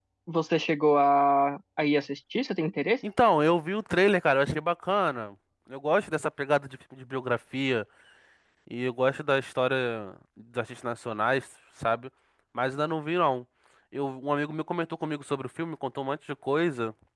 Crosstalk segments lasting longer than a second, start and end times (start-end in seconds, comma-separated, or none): none